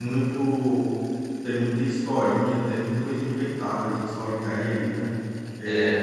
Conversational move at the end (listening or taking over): listening